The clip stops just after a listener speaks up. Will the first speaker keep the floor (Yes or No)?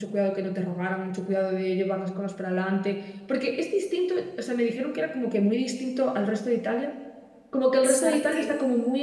Yes